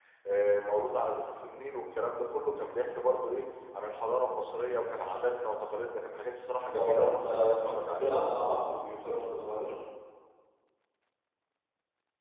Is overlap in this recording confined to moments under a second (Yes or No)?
No